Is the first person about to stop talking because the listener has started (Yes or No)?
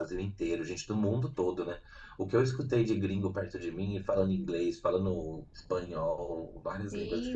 Yes